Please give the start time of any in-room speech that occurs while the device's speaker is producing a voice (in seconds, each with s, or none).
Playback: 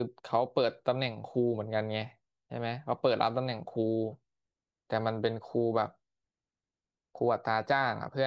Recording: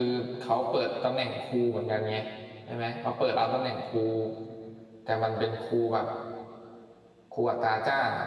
none